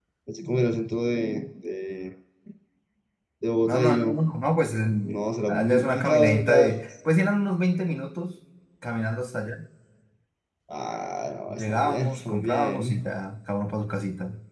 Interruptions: present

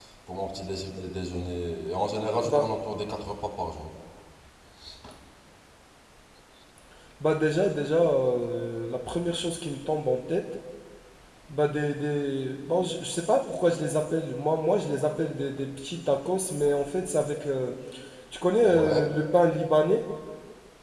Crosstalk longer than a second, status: none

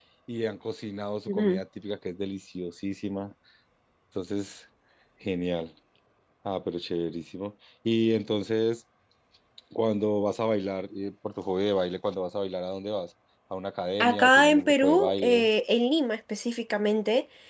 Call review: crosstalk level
present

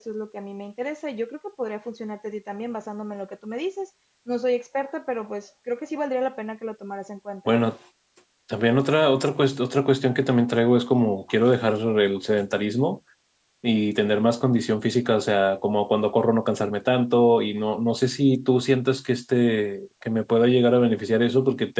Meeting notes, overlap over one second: none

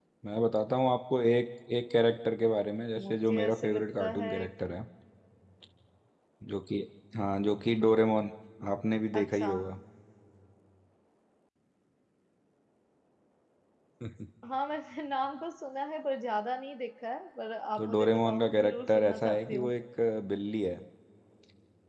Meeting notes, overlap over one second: present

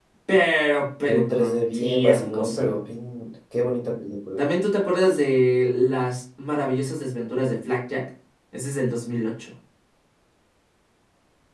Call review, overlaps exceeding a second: present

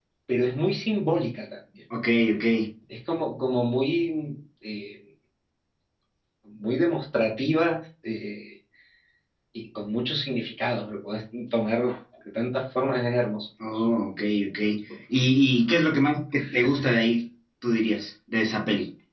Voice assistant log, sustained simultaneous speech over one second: none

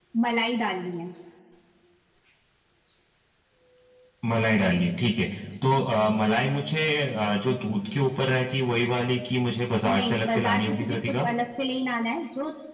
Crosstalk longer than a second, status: present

